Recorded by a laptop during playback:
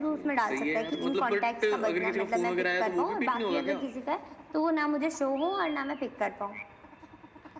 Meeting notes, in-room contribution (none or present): none